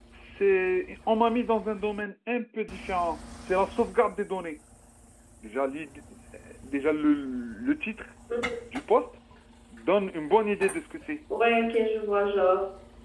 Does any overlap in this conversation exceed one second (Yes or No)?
No